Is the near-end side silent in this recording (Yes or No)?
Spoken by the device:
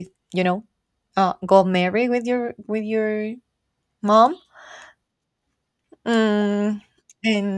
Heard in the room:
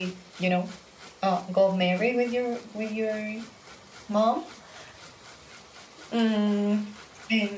Yes